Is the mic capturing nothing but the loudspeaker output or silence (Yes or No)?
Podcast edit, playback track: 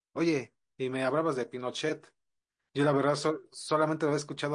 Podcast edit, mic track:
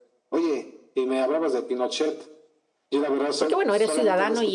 No